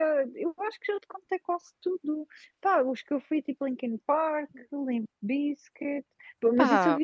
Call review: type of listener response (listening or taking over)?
listening